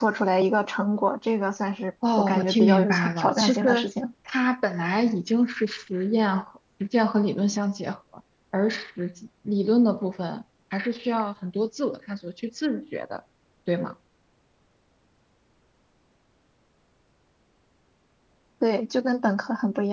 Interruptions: present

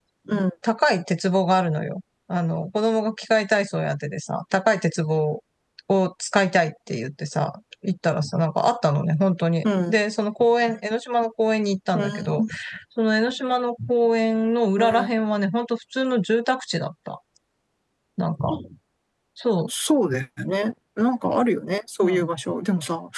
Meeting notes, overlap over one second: none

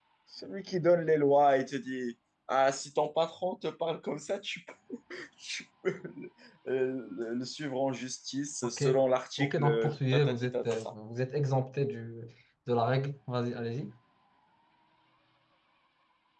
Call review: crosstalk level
present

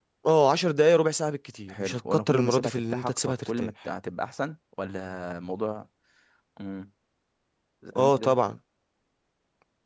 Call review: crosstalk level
present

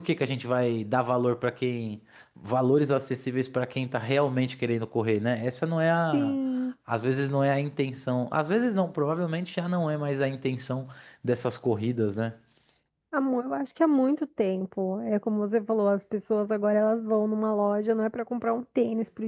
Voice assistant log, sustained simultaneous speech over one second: none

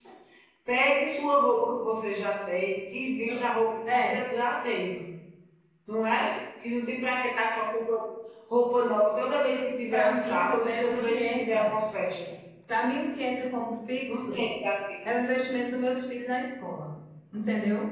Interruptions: present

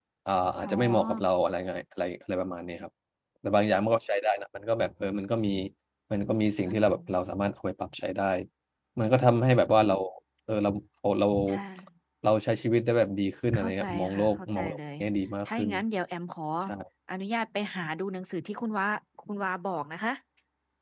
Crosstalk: present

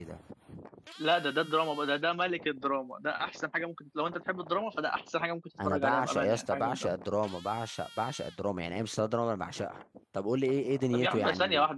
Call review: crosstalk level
present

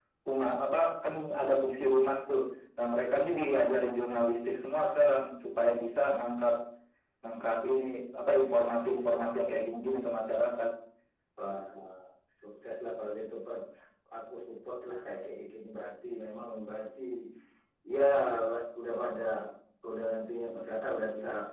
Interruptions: none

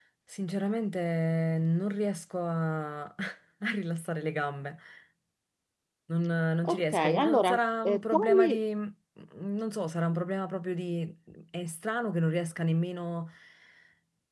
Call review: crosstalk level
present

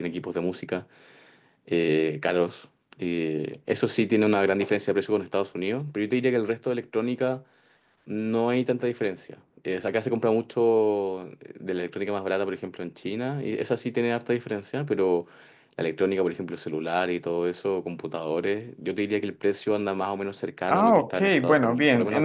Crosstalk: present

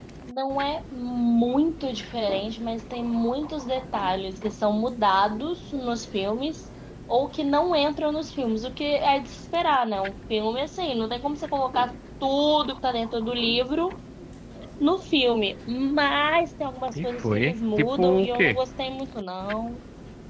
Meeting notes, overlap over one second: present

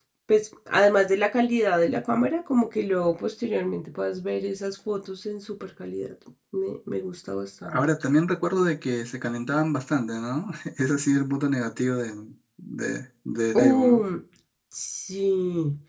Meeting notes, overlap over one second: none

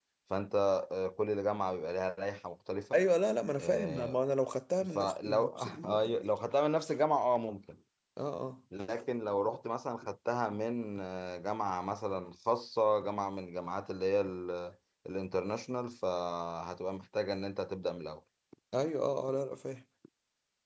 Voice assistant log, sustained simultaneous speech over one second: present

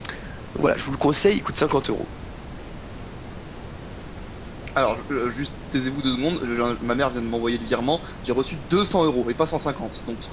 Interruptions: none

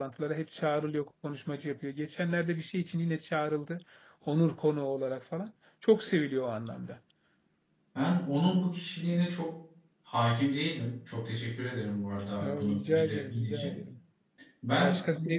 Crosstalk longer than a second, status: present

